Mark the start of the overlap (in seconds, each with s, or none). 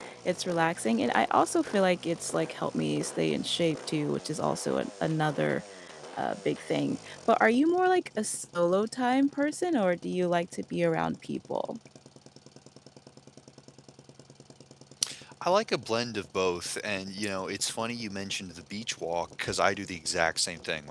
none